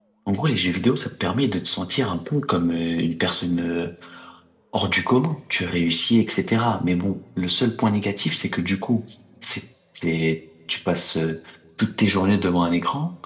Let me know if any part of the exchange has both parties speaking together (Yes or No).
No